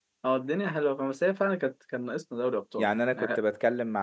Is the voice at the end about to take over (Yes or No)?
Yes